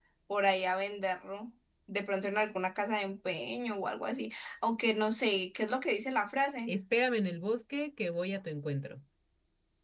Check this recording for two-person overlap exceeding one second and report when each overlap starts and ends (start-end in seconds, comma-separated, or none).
none